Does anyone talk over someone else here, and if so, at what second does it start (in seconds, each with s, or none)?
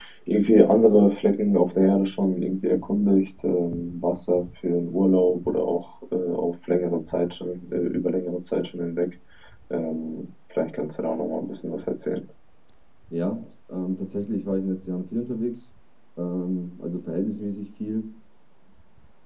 none